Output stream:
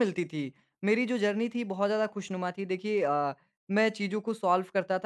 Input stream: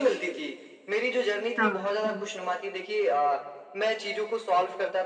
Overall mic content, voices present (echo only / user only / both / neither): both